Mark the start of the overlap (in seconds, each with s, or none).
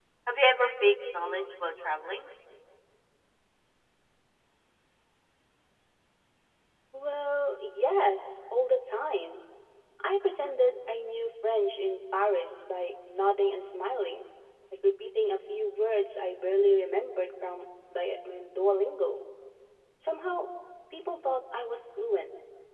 none